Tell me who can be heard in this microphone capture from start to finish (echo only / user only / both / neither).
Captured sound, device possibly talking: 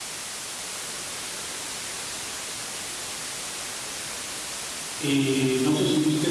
user only